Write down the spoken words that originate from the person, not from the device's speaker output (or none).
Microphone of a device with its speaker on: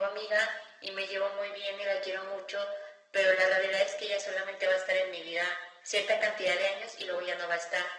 none